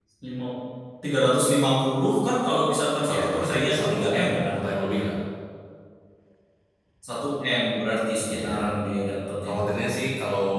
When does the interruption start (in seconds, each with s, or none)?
3.1 s